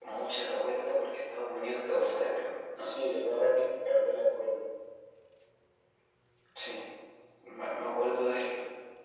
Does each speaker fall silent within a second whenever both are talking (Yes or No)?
Yes